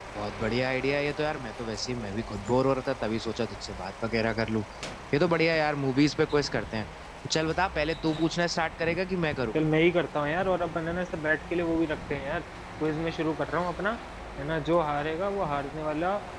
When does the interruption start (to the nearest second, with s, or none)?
none